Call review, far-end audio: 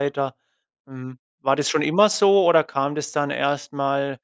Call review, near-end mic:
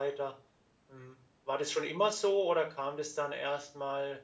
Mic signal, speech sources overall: echo only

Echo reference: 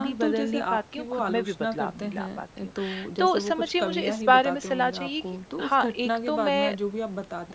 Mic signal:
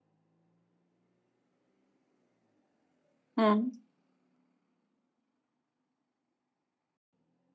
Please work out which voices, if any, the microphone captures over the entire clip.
user only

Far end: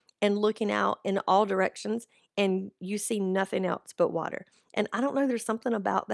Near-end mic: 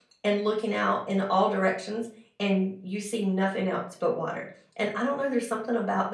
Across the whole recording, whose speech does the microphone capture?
echo only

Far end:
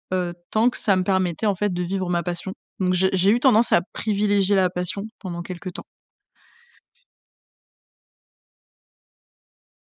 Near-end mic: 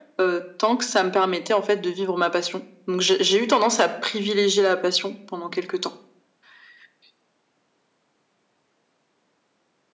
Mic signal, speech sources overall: echo only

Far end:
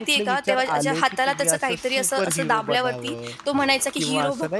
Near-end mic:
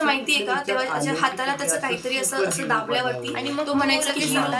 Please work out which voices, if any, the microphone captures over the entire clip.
both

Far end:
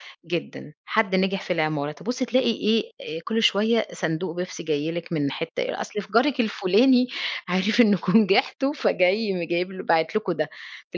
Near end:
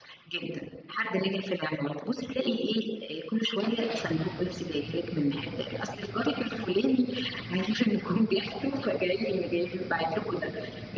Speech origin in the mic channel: echo only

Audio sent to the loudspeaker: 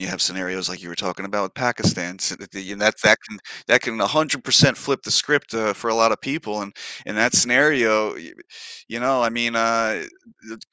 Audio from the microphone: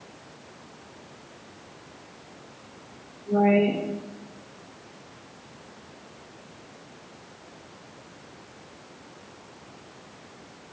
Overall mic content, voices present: user only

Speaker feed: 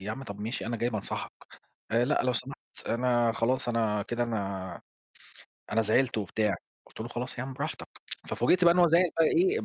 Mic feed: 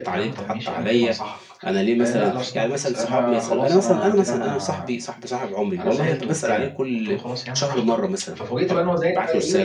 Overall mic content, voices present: both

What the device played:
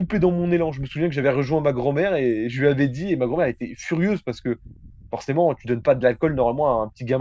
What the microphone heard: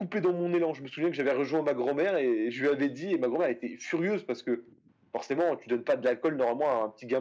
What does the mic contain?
echo only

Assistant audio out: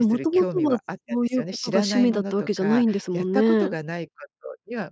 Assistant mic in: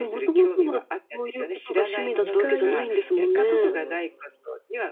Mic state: both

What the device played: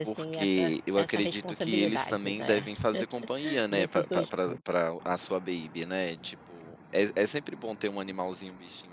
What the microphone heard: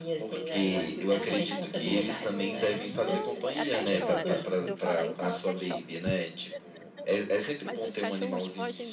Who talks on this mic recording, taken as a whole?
both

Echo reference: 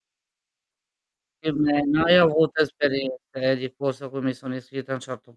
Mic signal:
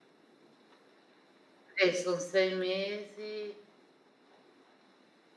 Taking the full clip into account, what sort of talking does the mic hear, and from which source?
user only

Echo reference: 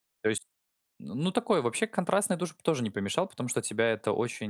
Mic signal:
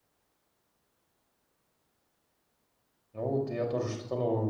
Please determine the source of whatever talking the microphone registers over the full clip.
user only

